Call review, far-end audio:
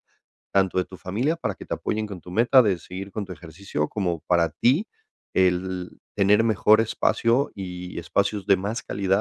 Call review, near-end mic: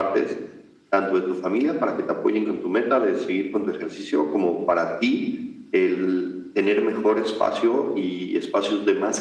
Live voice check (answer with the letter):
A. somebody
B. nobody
B